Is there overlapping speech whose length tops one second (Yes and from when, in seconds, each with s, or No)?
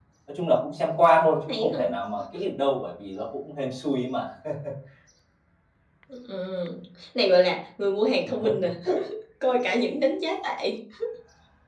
No